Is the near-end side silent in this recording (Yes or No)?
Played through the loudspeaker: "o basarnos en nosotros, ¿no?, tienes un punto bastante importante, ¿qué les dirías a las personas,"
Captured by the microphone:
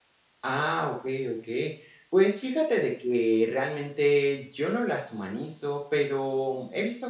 No